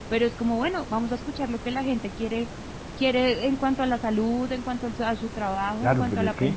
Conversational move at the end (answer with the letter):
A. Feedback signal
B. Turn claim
B